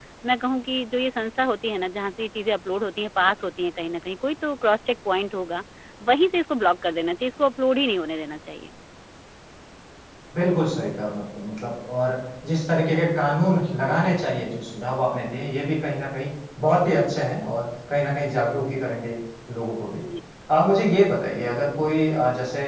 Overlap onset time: none

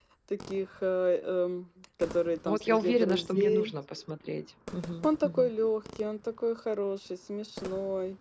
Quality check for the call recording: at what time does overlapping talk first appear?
2.4 s

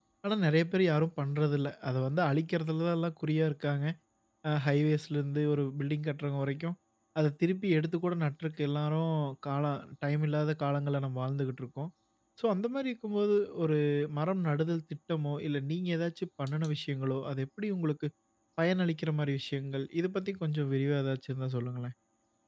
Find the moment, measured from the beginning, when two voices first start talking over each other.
none

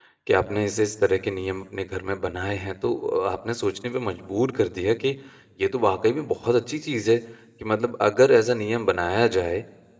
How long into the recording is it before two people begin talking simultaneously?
none

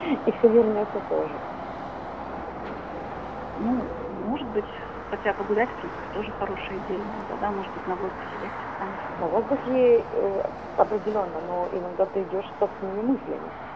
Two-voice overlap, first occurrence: none

